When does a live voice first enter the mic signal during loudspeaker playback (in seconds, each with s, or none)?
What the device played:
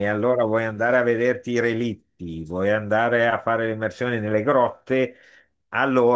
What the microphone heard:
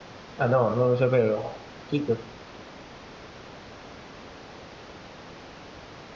0.4 s